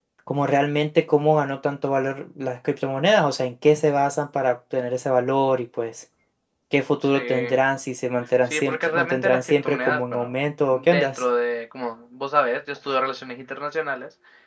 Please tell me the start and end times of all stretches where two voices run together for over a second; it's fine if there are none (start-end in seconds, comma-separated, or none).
8.5-10.3